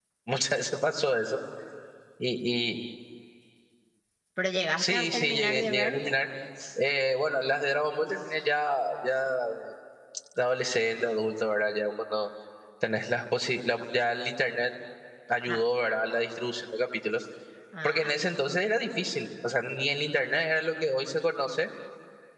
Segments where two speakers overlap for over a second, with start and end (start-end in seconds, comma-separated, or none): 4.8-6.0